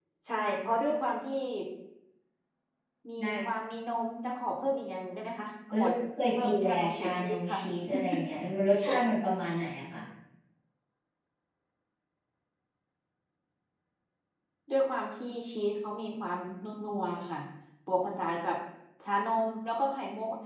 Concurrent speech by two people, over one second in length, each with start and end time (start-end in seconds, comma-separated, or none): 6.4-7.6